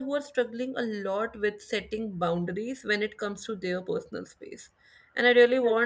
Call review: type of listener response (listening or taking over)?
listening